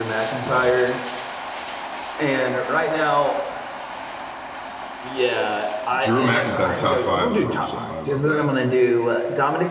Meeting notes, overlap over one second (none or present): present